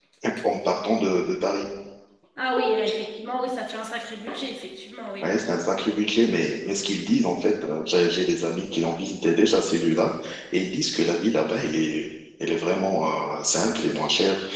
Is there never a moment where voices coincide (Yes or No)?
Yes